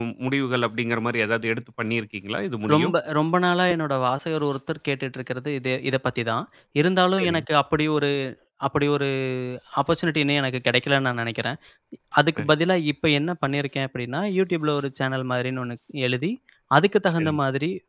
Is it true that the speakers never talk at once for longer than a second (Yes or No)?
Yes